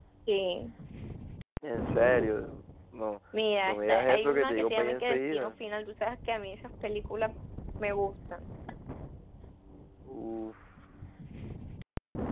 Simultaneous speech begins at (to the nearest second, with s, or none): 4 s